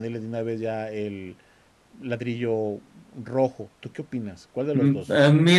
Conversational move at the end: taking over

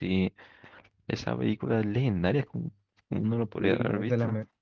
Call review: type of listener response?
taking over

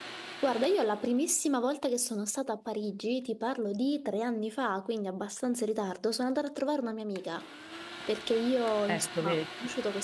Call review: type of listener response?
listening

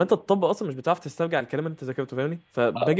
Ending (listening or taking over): listening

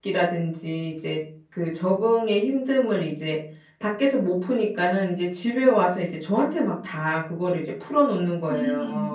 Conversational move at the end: taking over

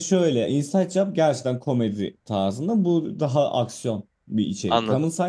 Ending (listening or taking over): listening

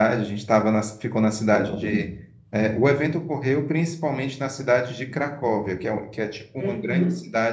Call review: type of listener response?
listening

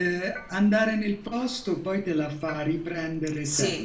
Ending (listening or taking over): taking over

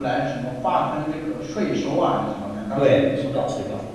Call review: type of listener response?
taking over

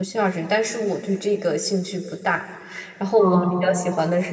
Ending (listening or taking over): listening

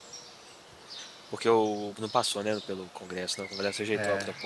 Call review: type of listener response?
taking over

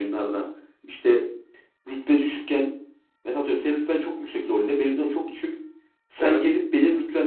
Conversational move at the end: listening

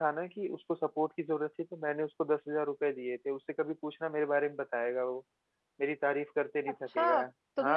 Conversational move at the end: taking over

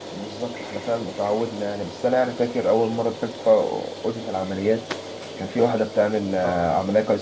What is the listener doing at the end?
listening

